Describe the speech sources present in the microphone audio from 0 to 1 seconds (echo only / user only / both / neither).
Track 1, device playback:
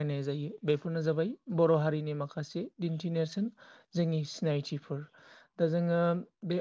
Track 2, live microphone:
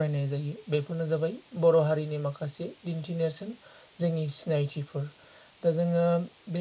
echo only